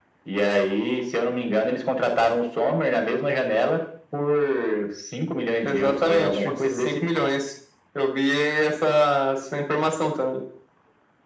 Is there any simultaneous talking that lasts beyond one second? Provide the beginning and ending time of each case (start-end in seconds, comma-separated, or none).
5.6-6.9